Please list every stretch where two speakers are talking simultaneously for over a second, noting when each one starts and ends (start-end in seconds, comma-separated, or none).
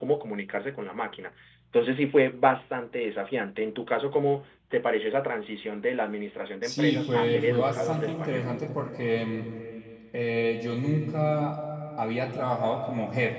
6.6-8.5